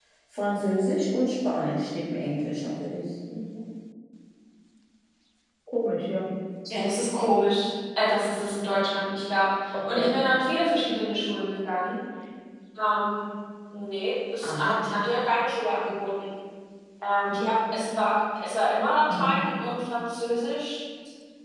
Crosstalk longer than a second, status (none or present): none